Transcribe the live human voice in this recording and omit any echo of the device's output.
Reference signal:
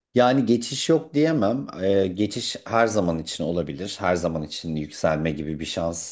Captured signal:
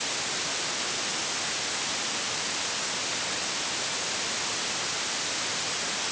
none

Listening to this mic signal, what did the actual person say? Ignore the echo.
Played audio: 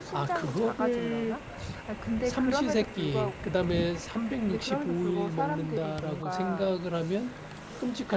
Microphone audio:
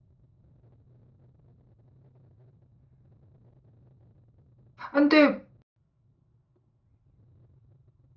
근데,

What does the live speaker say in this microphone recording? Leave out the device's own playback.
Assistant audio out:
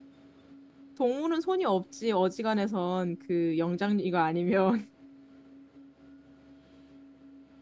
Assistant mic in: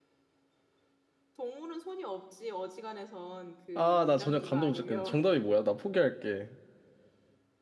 아, 나 전혀 감도 못 잡겠네. 정답이 뭐야? 나 포기할게.

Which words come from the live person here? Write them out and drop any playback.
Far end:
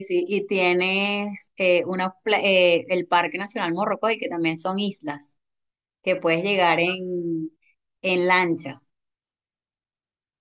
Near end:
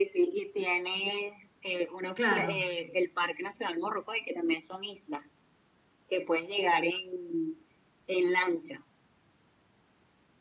claro.

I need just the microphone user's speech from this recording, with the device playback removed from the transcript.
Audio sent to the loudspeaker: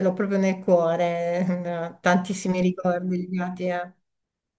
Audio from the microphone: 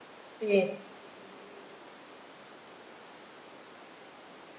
Sì,

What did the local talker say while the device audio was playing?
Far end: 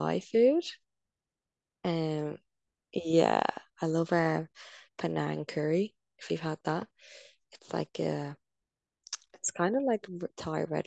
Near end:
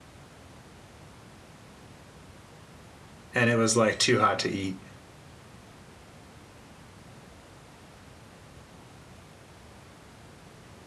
and it was like too hot to eat.

